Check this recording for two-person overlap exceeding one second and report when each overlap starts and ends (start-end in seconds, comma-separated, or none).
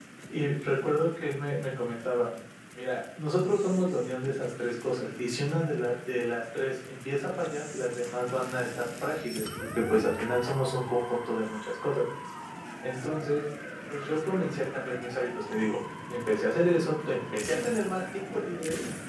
none